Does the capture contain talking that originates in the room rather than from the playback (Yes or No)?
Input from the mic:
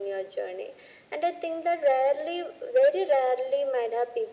No